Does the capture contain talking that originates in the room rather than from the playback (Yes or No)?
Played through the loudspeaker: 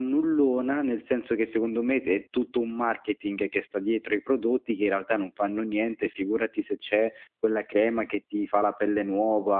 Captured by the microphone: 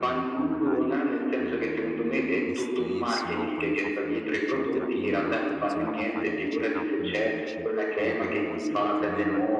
Yes